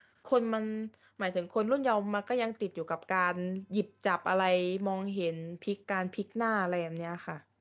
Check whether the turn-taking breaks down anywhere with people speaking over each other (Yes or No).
No